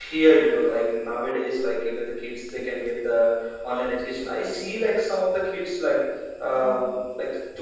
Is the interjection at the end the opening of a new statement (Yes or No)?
No